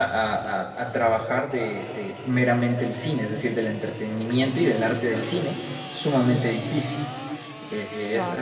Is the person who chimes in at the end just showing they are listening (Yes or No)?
Yes